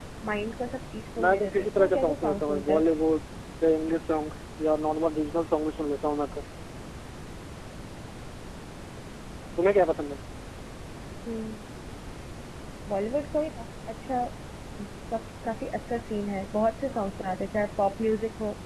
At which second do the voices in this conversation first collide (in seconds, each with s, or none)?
1.2 s